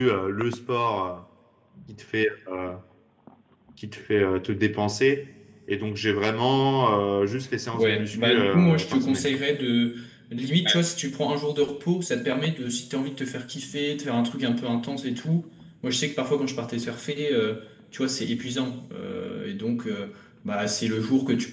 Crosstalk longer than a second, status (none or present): present